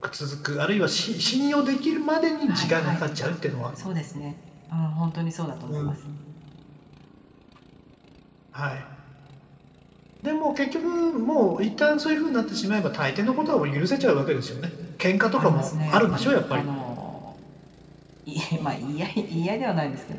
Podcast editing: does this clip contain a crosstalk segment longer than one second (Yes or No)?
Yes